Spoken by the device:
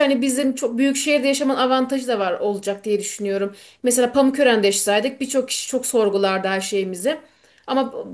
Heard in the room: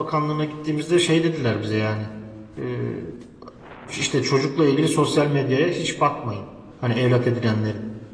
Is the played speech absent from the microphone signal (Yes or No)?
Yes